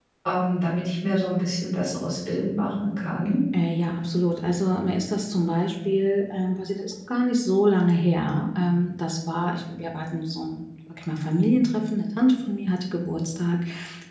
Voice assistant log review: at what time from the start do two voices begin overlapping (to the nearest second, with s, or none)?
none